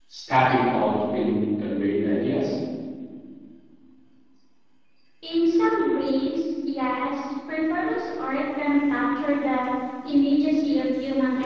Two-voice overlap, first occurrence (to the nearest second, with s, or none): none